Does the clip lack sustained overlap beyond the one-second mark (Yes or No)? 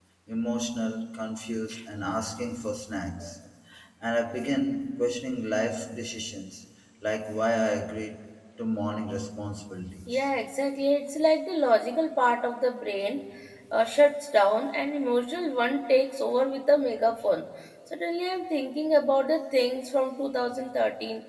Yes